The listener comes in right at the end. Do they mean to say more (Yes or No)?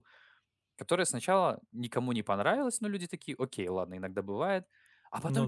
No